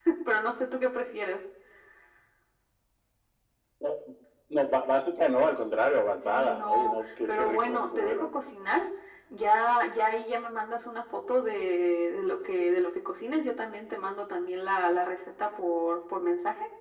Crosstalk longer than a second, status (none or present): present